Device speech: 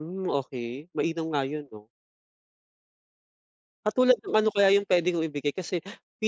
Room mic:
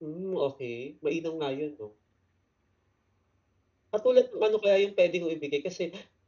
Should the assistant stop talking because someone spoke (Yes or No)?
No